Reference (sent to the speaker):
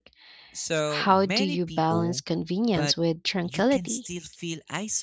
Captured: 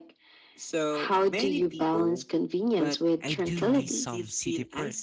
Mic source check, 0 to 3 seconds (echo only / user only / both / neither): echo only